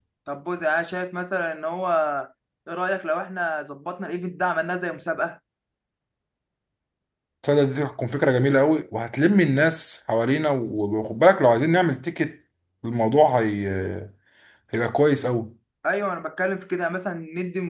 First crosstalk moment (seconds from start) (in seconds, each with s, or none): none